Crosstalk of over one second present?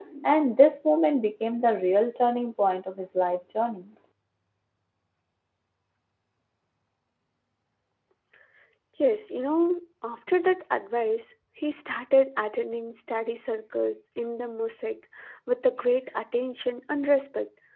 No

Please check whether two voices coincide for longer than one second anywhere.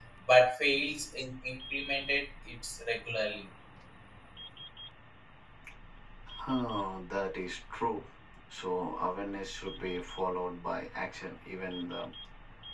No

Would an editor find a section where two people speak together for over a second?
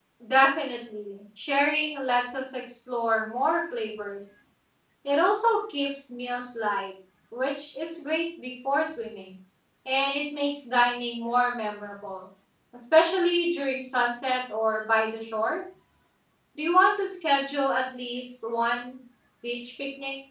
No

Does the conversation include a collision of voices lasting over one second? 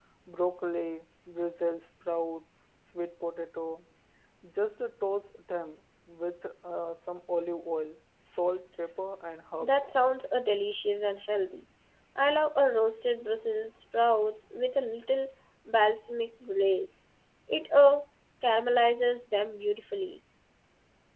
No

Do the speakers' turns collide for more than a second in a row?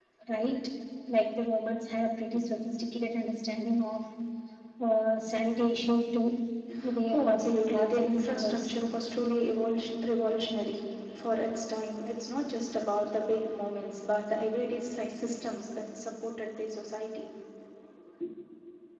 Yes, from 7.1 s

